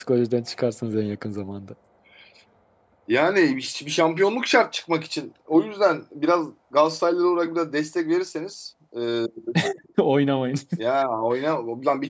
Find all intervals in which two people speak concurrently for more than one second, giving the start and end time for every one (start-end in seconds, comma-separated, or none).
none